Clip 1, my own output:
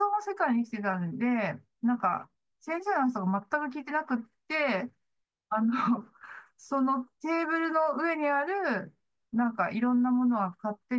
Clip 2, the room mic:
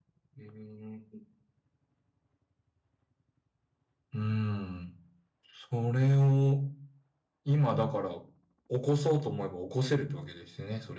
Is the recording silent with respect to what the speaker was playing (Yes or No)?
Yes